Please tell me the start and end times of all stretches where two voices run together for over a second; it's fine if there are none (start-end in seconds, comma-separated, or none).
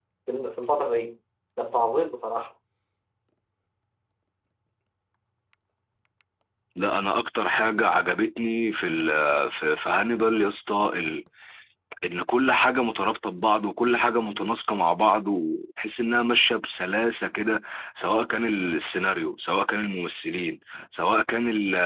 none